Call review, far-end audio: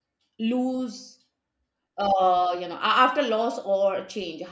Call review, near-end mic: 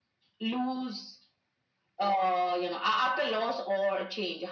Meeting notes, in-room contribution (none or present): none